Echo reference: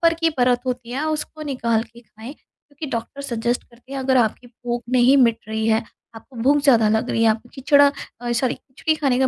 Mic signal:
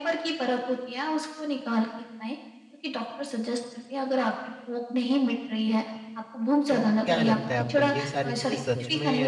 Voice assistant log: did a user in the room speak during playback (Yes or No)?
Yes